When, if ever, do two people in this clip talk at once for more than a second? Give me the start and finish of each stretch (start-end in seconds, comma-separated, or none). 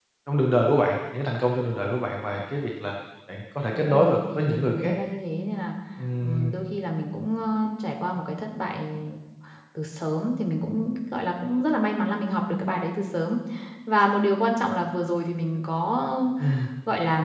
3.7-5.0